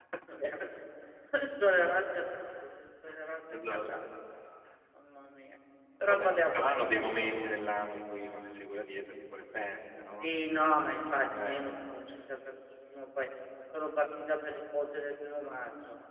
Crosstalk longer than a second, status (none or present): present